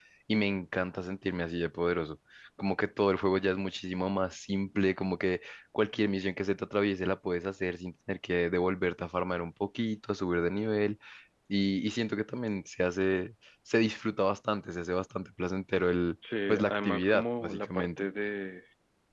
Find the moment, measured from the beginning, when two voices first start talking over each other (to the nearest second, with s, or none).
16 s